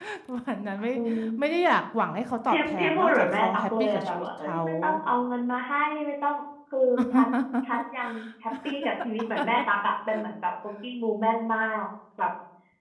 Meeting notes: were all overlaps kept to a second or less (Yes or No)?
No